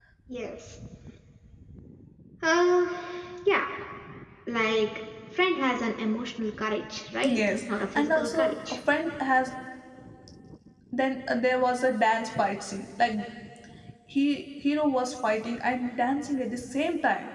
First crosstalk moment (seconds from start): 7.2 s

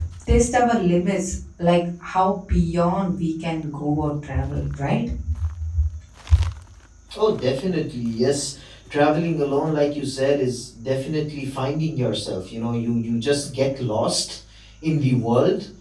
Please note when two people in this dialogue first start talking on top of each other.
none

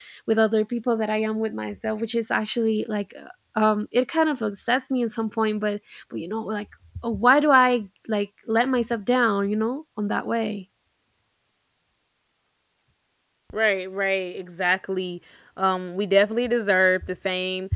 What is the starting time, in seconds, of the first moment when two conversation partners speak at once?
none

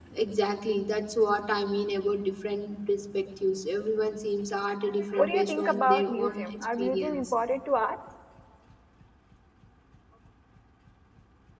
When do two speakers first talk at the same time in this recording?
5.2 s

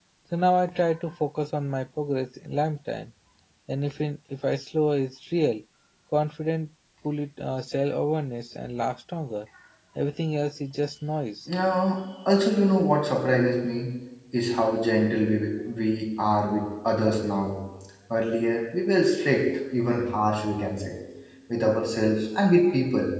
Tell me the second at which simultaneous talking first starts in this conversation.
none

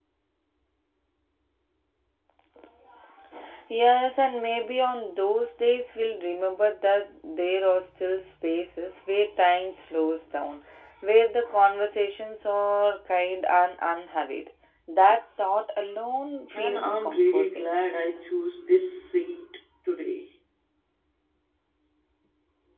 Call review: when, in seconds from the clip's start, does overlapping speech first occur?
16.5 s

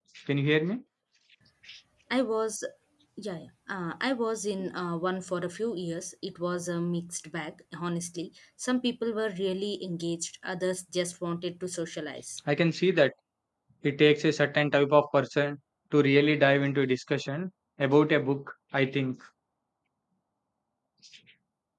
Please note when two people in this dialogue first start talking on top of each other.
none

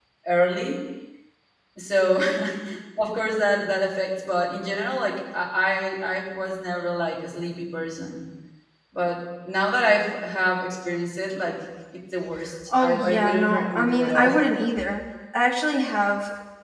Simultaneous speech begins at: 12.7 s

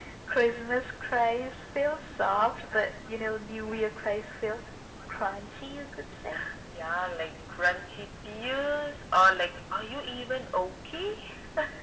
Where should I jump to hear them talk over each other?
none

